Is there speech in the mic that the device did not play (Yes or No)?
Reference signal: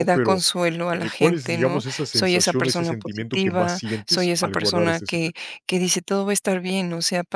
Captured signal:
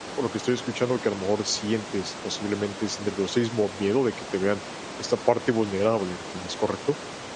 Yes